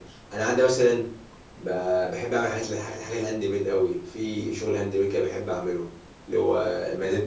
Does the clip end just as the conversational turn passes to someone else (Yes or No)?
No